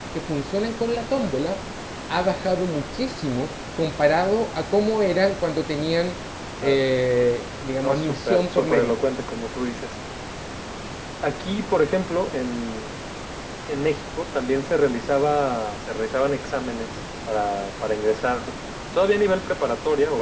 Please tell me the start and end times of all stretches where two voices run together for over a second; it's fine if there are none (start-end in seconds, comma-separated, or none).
7.8-9.0